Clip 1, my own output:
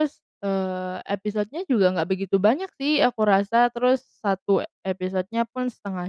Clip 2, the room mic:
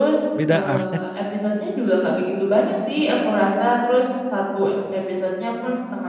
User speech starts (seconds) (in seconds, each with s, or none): 0.3 s